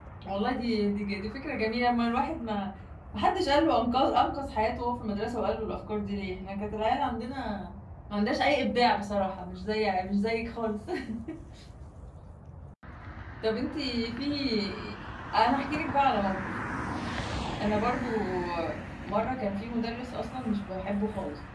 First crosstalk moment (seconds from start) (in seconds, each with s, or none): none